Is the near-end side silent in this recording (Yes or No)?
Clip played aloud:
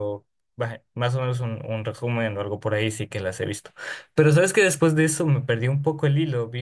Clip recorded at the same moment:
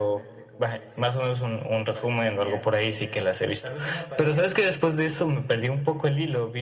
No